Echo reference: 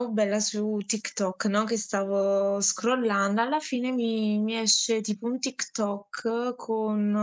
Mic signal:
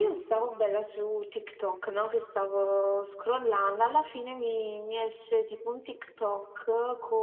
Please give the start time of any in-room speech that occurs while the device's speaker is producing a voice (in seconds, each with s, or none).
none